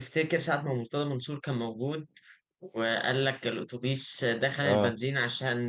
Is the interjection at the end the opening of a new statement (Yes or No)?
No